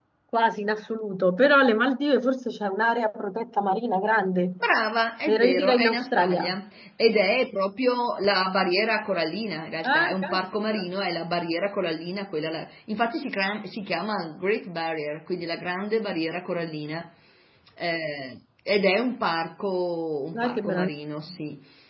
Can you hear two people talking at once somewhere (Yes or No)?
Yes